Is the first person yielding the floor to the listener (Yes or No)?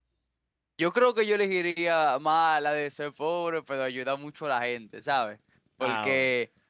No